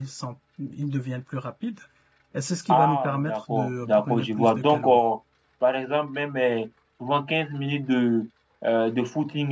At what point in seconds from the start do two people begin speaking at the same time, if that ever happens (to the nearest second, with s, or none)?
3 s